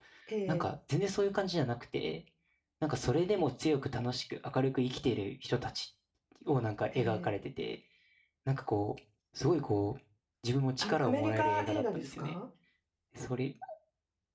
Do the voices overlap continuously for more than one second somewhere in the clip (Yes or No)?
Yes